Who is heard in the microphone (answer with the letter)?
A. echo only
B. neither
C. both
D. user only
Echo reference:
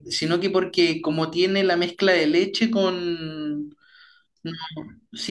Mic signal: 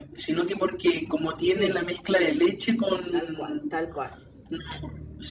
C